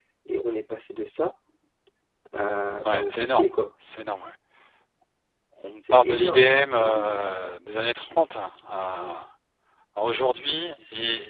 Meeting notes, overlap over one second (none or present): present